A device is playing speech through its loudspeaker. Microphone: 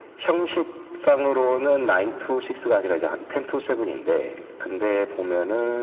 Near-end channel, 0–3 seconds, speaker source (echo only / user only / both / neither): echo only